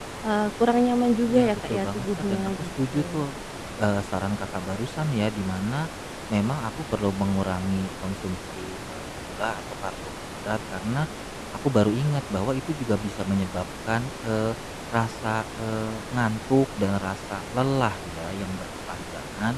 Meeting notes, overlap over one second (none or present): present